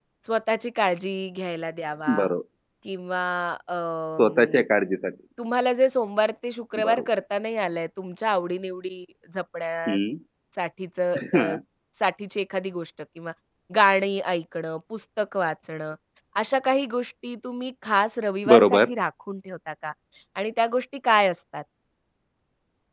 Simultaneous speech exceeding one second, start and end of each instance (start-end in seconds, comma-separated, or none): none